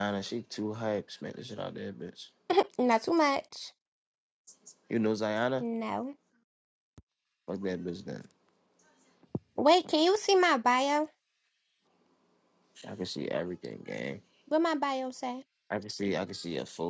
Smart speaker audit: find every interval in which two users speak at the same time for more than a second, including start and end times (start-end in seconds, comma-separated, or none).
none